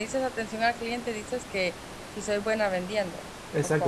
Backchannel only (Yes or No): No